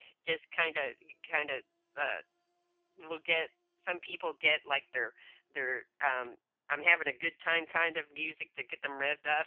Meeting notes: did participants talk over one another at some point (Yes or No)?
No